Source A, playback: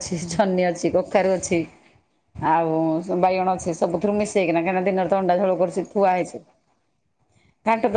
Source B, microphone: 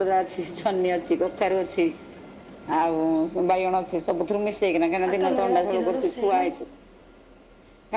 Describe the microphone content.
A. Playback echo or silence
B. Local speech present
B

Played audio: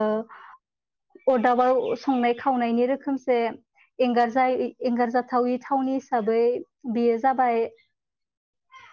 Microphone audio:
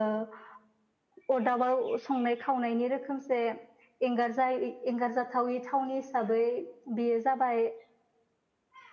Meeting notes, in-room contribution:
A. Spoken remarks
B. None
B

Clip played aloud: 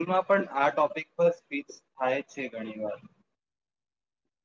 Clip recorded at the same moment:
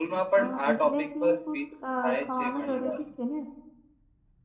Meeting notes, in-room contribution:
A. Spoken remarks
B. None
A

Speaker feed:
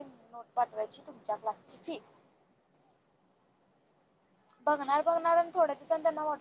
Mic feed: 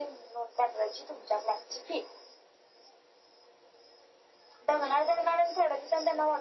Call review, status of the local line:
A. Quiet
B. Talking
A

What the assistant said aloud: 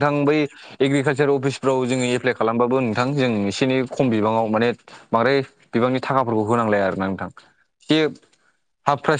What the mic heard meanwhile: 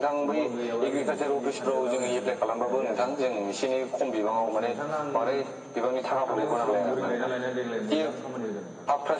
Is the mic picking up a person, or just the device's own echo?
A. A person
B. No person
A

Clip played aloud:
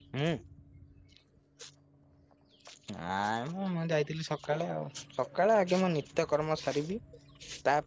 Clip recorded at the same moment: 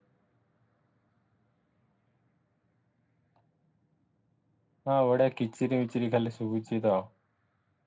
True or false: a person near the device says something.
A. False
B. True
B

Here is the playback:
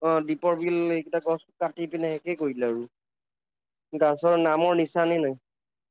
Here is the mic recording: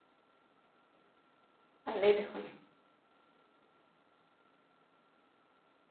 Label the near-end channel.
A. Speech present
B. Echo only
A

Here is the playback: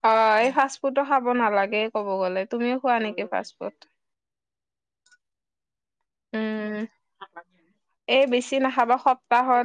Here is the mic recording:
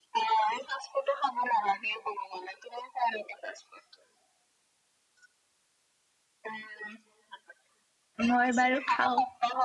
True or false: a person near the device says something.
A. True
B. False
A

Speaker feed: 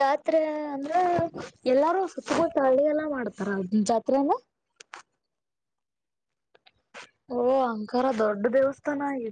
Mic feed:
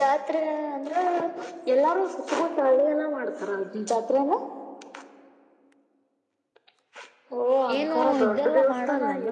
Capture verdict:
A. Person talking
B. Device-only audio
A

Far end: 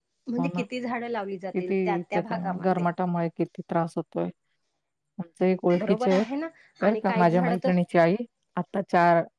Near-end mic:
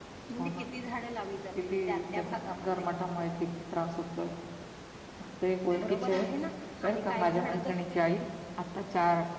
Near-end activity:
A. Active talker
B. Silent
B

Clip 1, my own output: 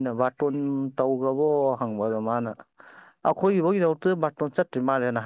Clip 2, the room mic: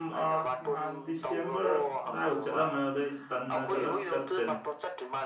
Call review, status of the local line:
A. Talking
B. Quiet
A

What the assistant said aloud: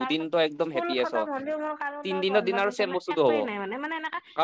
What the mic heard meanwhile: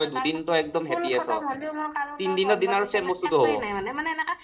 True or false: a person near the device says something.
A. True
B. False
B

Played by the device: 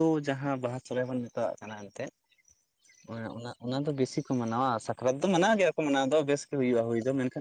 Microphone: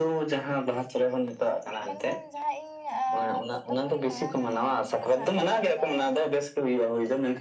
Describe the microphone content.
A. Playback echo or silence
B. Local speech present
B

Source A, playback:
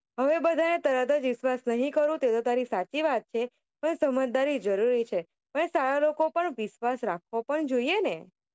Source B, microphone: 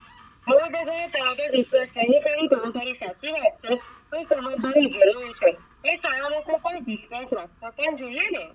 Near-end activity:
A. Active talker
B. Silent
B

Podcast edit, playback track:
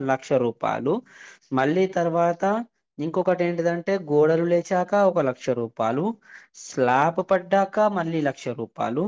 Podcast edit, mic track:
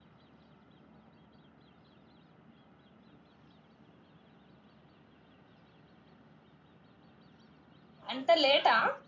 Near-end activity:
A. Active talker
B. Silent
A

